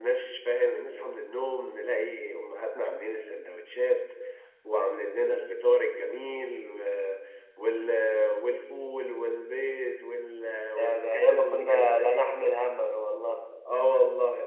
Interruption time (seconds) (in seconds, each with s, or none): 10.8 s